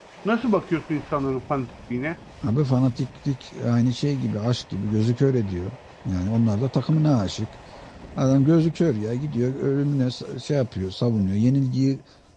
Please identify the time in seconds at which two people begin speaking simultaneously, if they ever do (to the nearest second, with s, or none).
none